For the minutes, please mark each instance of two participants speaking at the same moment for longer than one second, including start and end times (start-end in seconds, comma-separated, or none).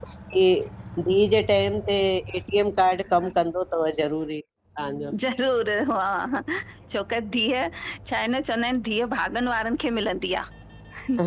none